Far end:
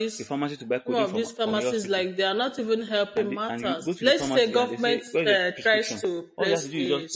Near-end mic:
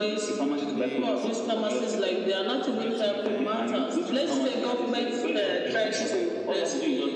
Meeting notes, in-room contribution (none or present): present